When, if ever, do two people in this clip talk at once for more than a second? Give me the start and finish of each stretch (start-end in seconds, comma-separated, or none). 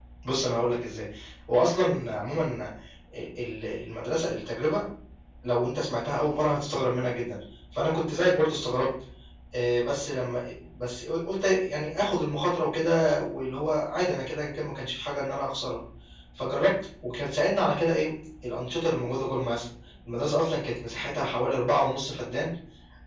none